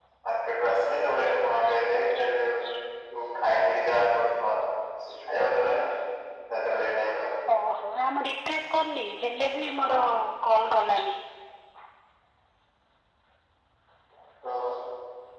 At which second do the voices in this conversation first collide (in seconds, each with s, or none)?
none